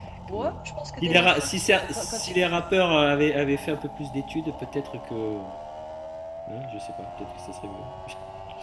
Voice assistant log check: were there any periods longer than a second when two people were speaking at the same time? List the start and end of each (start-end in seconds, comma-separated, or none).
1.0-2.4